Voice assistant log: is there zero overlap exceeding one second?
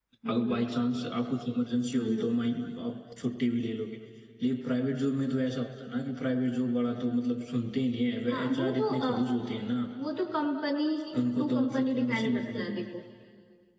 No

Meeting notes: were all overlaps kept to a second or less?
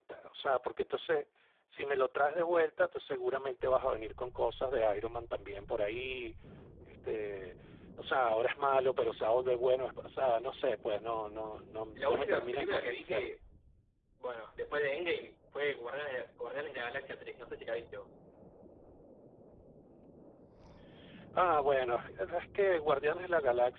No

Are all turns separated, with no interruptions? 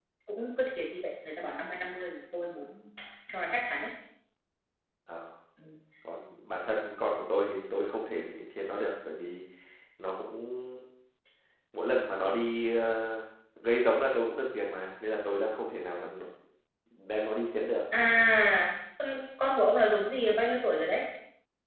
Yes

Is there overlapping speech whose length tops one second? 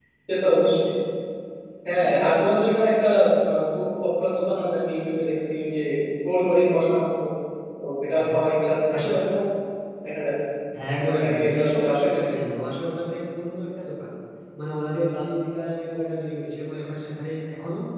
Yes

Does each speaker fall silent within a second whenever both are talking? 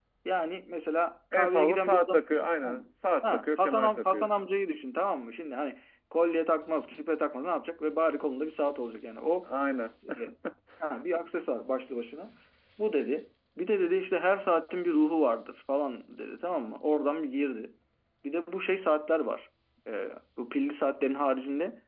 No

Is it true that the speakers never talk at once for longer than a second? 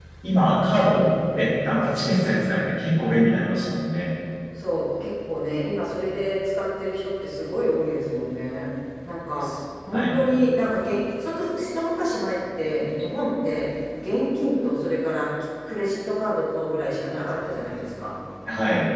Yes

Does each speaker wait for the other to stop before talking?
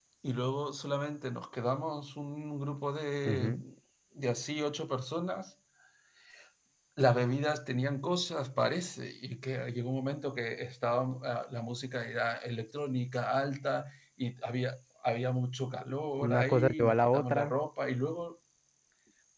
No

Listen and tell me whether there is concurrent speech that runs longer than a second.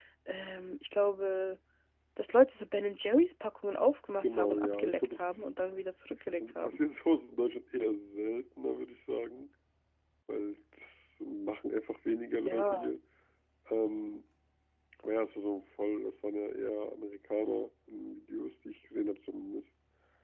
Yes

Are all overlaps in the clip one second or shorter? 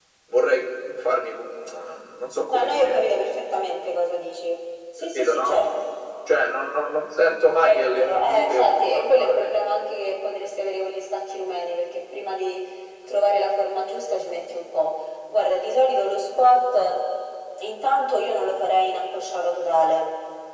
No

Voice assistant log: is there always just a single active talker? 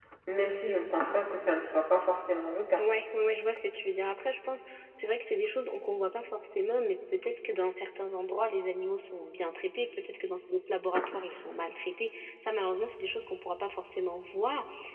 Yes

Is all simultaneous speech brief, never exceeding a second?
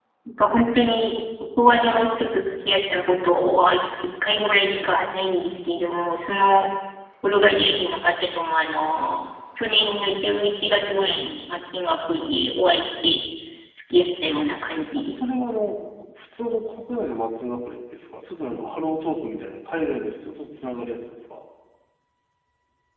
Yes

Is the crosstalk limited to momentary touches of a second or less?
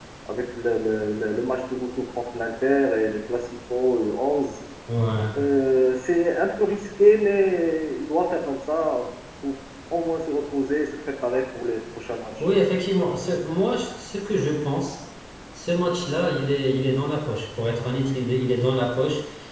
Yes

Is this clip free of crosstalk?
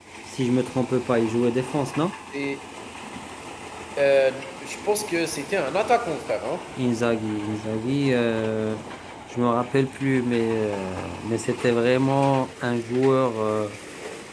Yes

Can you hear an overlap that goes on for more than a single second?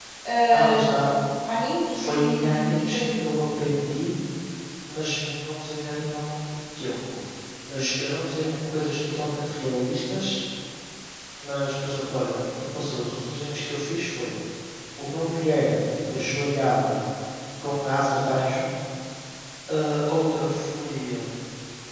Yes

